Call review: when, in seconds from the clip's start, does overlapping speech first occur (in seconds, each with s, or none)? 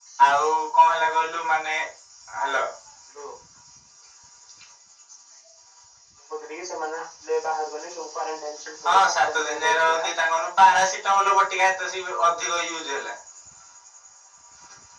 8.8 s